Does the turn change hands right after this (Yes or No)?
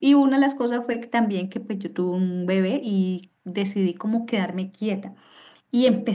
No